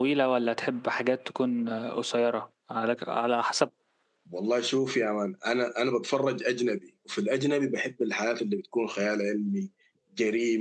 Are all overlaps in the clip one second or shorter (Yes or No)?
Yes